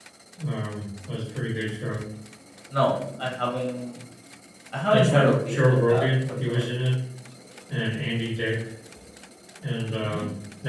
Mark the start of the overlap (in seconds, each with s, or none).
4.9 s